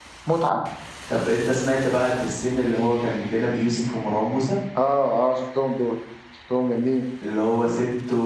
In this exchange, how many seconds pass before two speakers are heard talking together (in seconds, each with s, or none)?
none